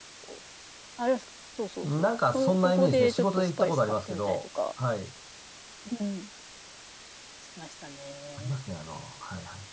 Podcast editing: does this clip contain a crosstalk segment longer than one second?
Yes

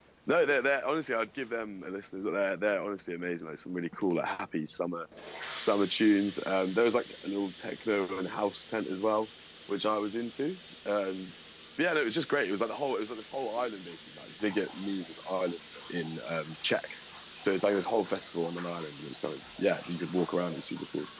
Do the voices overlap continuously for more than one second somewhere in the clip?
No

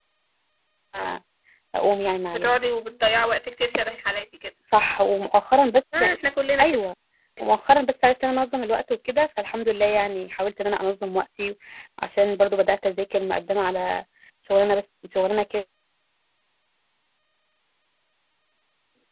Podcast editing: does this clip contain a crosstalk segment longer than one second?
No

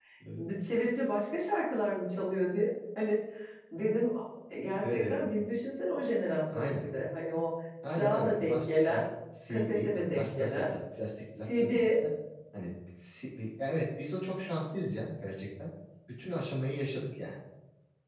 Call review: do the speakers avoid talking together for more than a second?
No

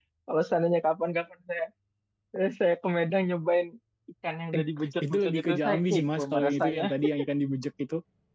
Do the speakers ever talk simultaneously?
Yes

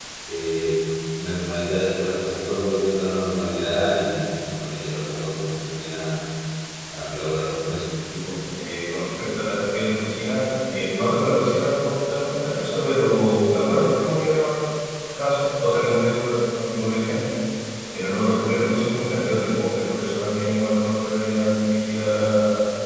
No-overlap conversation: Yes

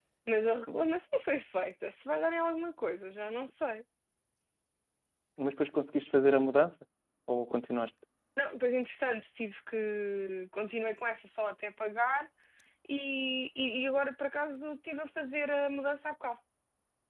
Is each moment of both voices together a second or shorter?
Yes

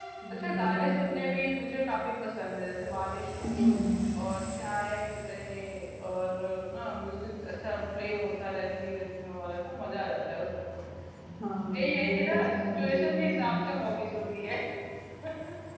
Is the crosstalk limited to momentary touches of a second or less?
No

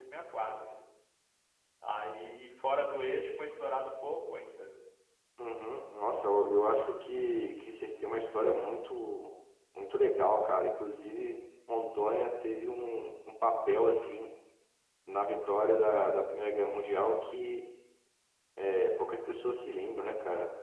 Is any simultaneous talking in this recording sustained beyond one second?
No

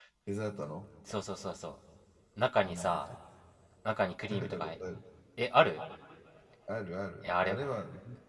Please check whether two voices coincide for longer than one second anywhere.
No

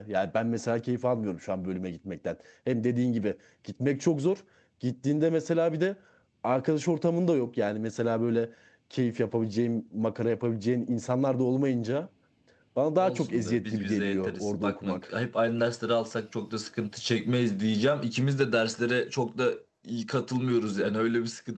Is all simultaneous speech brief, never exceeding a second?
No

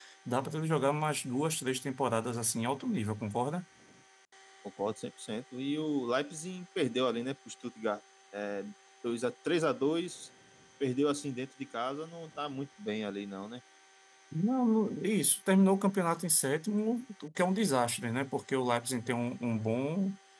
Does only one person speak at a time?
Yes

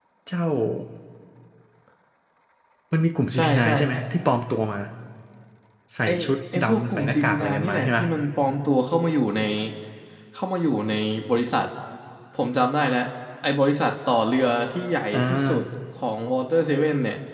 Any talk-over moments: Yes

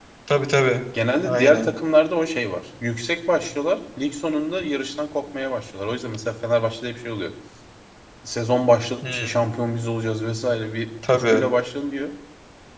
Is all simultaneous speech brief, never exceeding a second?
Yes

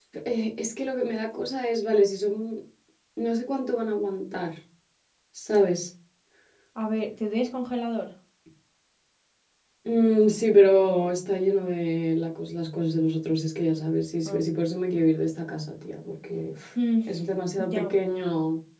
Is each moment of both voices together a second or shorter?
Yes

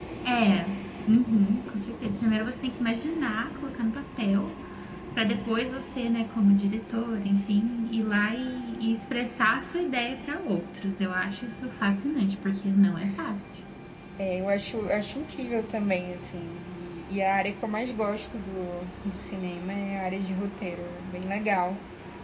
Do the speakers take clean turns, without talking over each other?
Yes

